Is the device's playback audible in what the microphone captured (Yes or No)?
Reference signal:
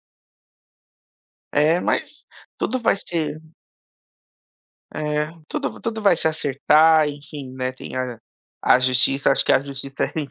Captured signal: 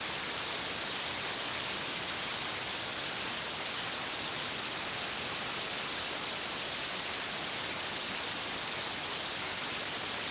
No